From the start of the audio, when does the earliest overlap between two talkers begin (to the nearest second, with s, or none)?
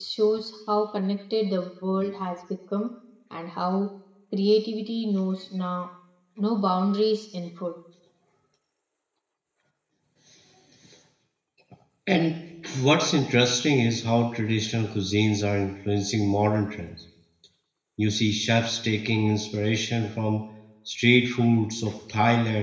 none